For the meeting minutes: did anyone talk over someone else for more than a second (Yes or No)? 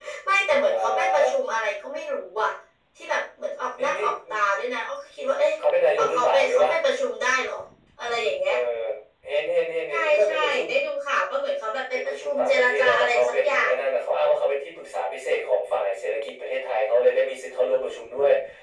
Yes